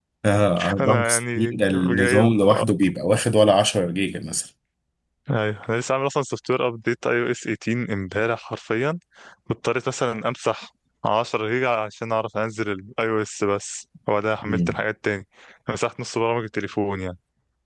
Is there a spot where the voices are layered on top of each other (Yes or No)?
Yes